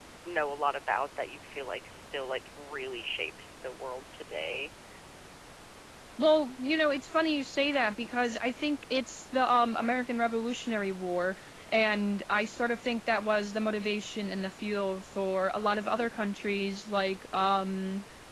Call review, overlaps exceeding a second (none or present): none